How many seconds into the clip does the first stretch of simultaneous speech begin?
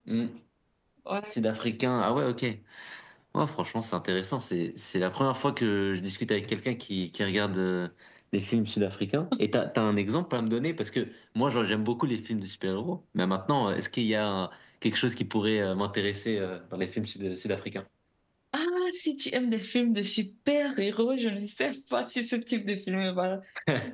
none

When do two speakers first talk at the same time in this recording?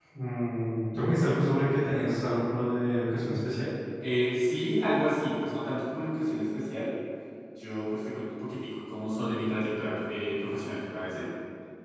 none

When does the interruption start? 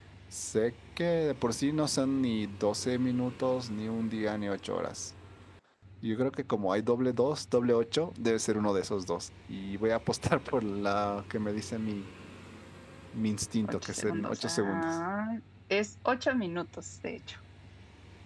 13.6 s

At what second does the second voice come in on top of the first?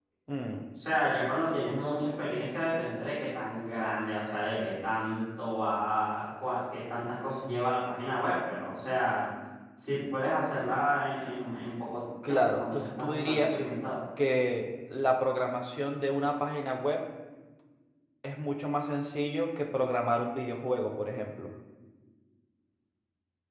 12.2 s

